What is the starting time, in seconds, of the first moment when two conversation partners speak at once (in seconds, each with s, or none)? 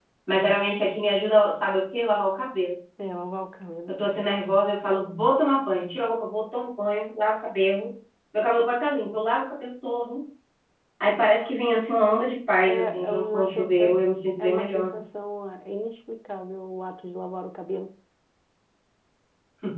12.7 s